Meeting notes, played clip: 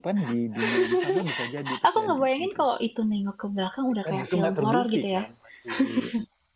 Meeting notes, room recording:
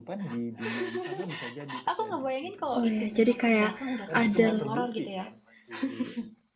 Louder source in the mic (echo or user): user